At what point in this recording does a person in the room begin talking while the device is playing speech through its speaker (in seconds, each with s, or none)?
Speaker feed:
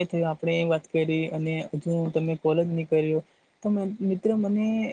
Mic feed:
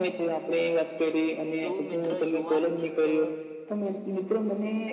1.6 s